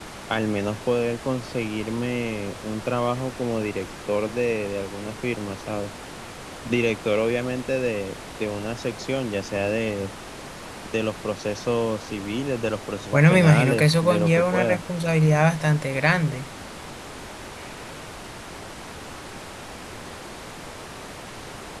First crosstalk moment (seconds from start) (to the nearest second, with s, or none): 13 s